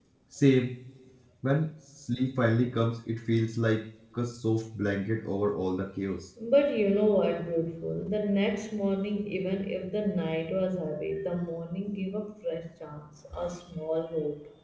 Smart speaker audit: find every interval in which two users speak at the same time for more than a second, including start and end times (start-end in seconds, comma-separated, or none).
none